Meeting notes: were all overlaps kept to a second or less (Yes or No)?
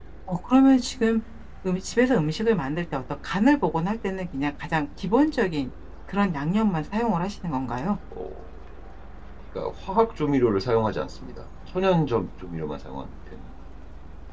Yes